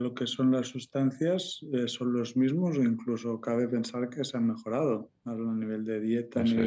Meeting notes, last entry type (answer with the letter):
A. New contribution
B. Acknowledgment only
B